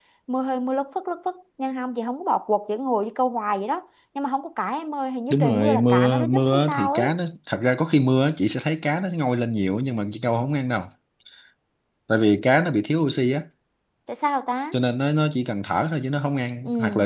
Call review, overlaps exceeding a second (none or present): present